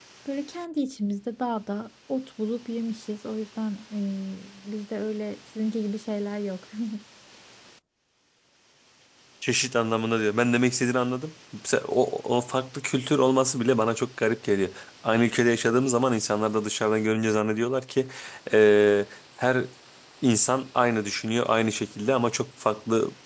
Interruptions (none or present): none